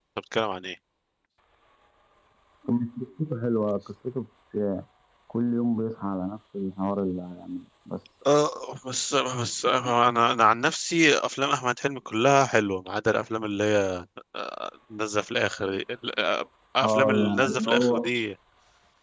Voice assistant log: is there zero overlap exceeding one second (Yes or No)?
No